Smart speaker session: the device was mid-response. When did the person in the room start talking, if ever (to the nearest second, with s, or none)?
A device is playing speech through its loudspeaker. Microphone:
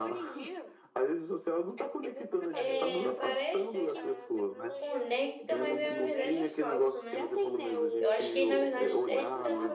3 s